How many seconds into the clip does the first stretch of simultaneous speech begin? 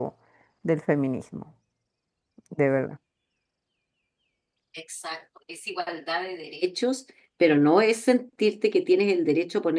none

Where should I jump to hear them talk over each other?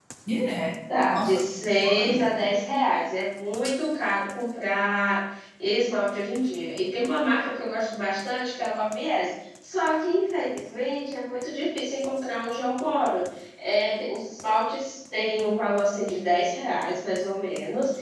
1.1 s

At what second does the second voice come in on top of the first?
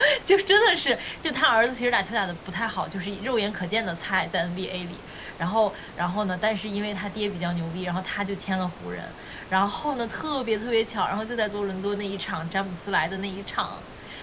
none

